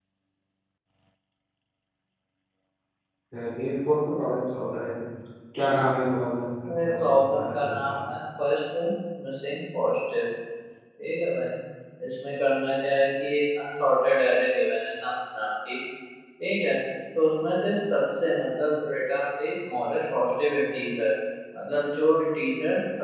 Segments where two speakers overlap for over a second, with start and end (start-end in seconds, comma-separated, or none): 6.6-7.9